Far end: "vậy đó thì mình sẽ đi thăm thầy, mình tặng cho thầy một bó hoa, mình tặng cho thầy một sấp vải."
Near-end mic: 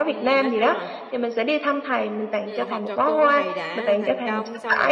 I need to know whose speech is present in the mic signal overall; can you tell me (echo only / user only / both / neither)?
both